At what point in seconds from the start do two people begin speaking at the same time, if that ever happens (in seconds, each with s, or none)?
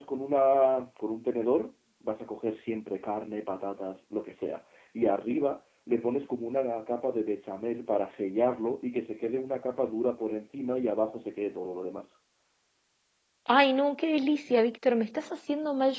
none